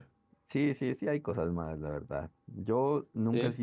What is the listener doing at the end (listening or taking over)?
listening